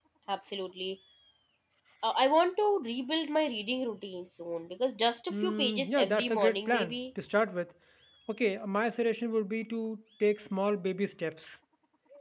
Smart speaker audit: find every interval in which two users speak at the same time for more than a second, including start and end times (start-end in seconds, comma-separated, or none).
5.3-6.9